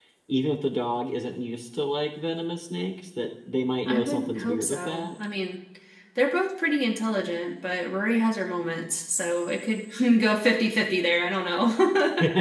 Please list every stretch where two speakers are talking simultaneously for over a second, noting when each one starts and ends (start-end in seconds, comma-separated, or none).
3.9-5.1